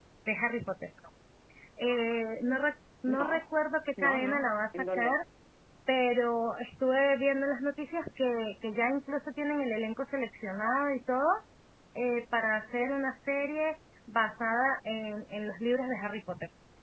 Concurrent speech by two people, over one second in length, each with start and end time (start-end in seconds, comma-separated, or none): 4.0-5.2